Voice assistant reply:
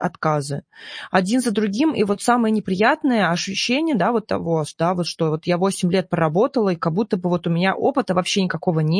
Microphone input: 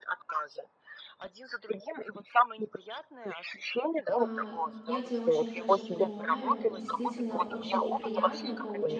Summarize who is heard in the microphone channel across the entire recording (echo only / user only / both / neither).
both